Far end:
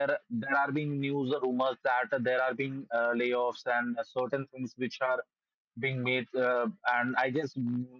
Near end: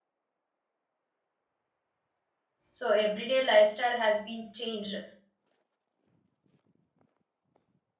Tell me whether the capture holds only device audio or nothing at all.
No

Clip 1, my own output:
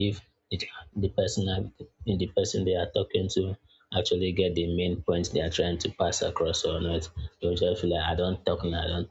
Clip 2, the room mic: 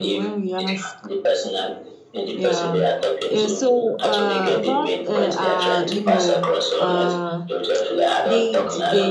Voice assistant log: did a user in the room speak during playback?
Yes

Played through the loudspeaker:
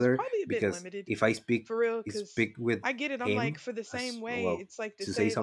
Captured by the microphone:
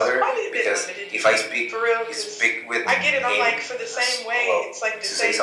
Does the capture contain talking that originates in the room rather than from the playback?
Yes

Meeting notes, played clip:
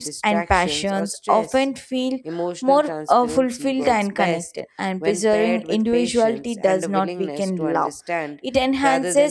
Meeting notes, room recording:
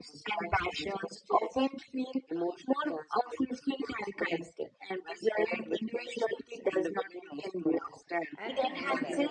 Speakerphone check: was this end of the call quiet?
No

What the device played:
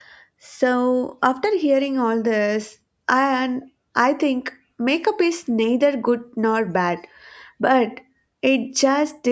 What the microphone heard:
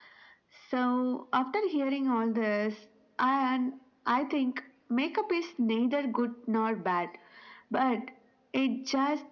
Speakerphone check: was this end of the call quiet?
Yes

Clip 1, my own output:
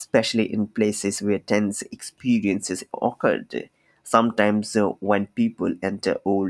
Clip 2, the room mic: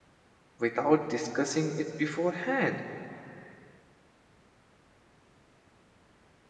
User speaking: Yes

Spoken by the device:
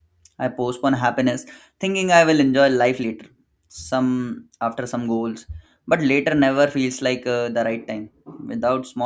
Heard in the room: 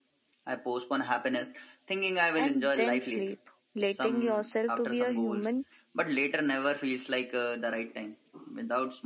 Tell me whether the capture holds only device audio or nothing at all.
No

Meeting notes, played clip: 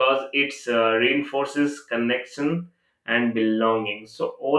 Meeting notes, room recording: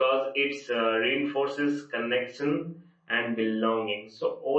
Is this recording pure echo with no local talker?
Yes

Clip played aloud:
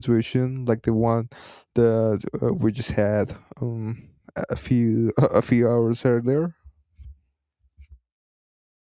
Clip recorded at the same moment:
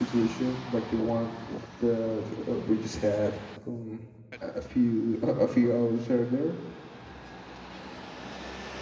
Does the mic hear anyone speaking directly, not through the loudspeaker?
No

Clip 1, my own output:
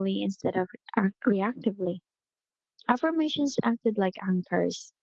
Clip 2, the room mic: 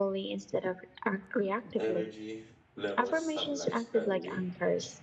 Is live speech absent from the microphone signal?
No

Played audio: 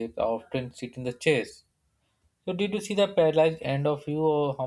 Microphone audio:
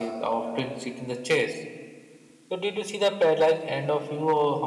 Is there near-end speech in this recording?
No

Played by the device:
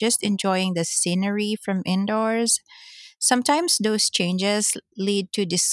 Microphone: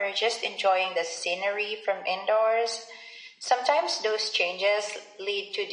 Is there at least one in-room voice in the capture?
No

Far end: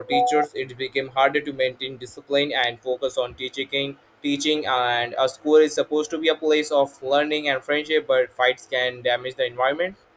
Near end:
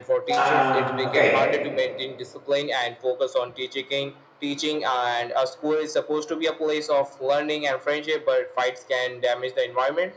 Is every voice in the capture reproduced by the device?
No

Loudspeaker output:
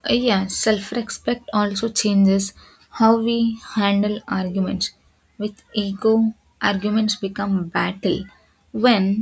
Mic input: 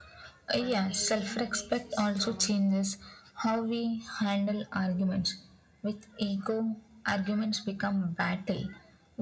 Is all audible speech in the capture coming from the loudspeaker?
No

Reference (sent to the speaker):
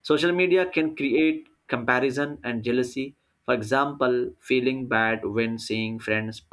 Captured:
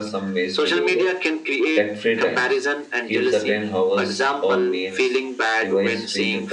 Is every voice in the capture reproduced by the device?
No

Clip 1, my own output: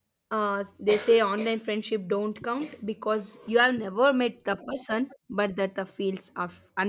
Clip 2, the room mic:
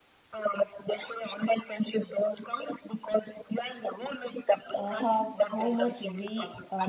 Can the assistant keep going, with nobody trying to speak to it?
No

